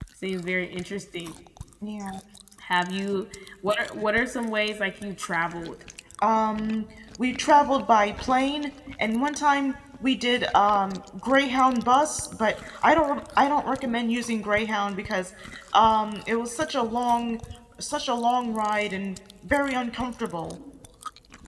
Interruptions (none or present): none